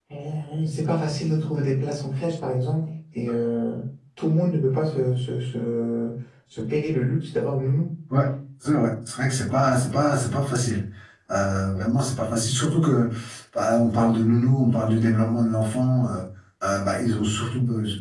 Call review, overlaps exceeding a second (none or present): none